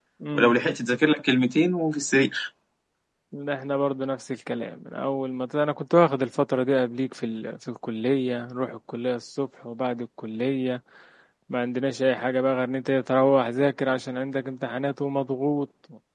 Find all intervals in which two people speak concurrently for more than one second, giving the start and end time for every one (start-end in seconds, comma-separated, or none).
none